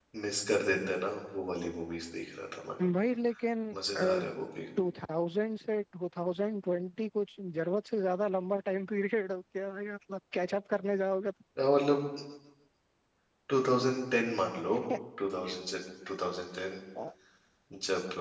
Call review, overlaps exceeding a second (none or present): none